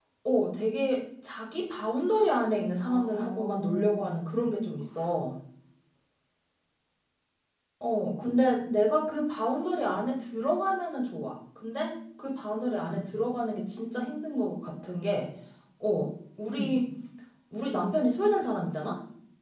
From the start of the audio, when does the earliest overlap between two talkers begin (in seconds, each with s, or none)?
2.8 s